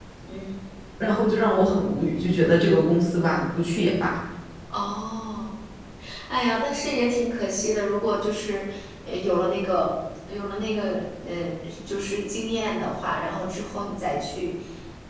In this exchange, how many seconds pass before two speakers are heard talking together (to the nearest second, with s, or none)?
none